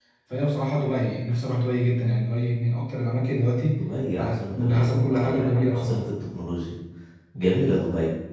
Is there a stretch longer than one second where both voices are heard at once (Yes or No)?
Yes